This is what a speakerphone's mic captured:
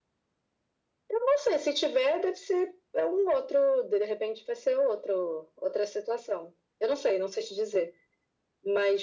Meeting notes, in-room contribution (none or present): none